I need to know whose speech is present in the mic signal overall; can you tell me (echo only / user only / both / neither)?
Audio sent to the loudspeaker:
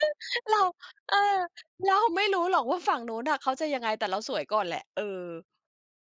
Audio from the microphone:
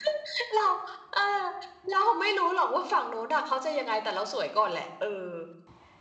echo only